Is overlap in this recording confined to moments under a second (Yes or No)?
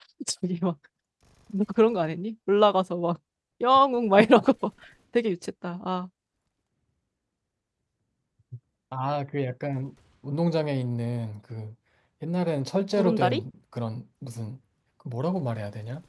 Yes